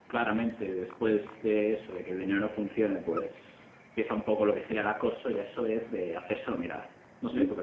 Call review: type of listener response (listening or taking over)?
taking over